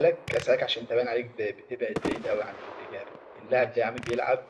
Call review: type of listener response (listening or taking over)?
listening